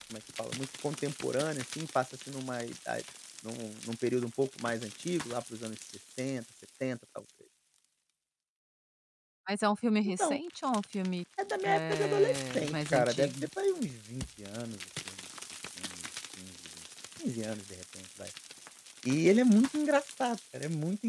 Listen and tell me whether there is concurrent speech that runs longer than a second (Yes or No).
Yes